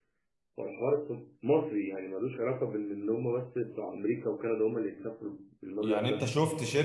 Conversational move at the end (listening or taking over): taking over